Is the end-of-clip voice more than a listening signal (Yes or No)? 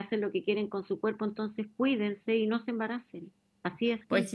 Yes